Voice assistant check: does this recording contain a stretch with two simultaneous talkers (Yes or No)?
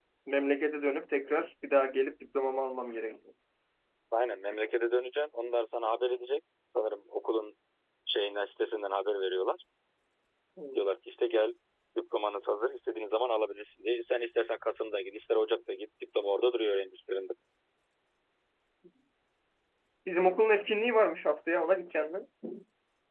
No